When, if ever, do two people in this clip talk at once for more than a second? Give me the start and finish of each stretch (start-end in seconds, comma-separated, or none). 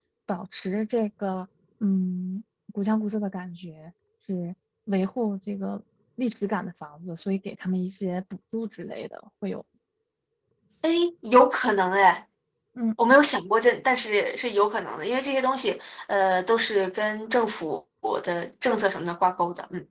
none